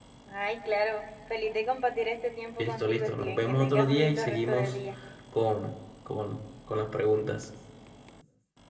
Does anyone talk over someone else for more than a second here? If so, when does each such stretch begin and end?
2.6-4.7

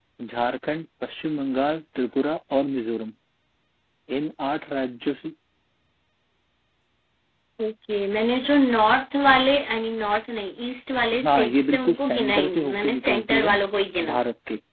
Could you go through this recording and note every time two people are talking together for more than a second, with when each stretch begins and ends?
11.3-13.5

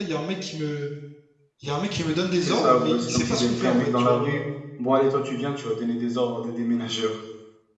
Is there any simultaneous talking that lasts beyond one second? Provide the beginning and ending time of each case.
2.5-4.4

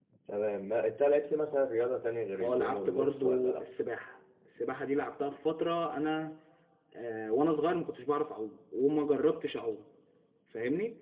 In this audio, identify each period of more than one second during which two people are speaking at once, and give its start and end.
2.4-3.7

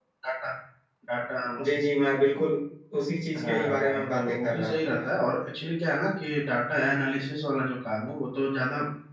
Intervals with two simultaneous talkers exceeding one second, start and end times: 3.4-5.1

